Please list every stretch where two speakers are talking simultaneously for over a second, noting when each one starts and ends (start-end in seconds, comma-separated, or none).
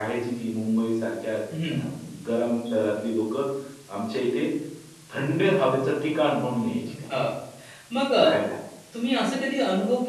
none